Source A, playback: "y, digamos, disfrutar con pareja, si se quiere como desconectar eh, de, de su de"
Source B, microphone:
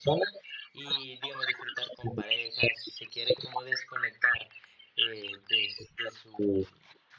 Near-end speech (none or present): none